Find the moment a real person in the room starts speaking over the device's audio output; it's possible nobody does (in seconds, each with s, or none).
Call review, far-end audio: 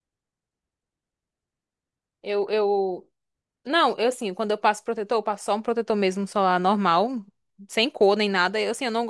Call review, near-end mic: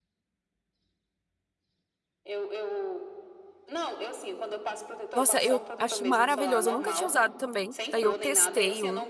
5.1 s